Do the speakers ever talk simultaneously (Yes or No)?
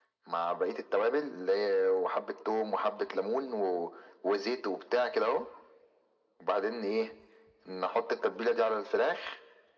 No